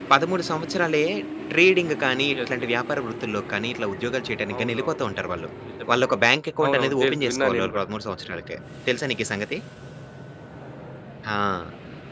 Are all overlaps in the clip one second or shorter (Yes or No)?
No